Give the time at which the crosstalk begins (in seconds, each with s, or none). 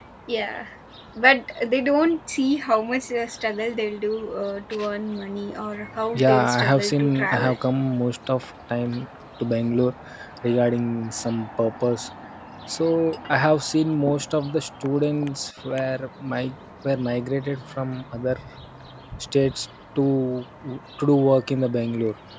6.1 s